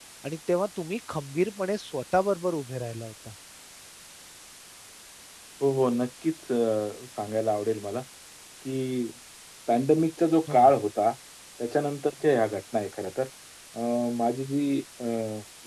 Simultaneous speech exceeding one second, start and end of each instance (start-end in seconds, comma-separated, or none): none